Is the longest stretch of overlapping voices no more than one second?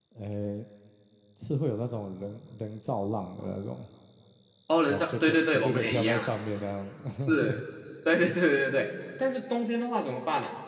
No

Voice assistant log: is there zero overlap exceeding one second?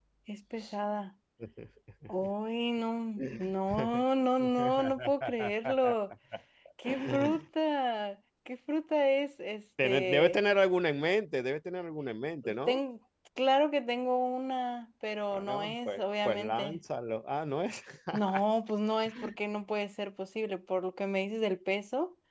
No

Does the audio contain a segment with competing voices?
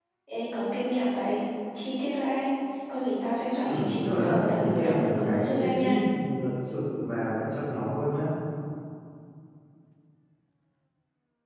Yes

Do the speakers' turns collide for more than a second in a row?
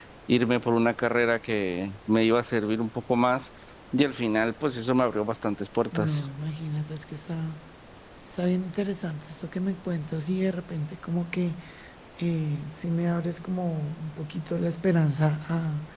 No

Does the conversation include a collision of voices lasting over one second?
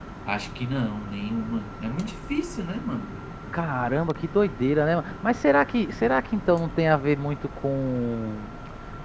No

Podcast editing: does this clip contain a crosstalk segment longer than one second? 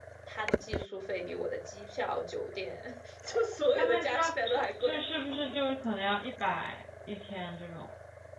Yes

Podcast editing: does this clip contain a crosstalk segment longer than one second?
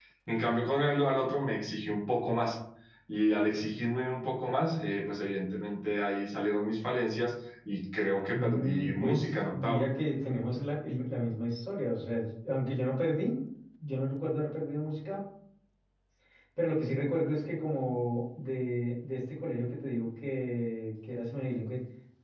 Yes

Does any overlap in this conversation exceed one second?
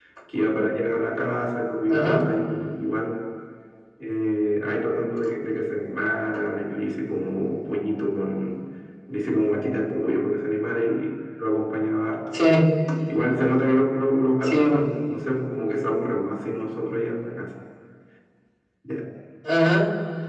No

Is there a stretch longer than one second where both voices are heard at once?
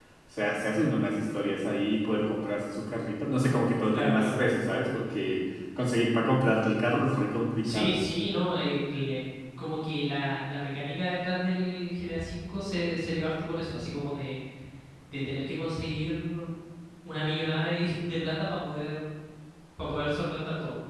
No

